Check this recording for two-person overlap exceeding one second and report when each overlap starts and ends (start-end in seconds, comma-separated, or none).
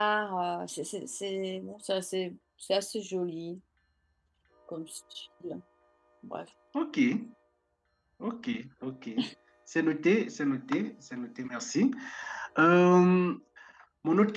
none